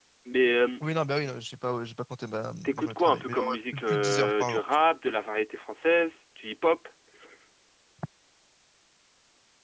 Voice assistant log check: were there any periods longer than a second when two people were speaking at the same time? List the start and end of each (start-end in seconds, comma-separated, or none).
2.6-4.8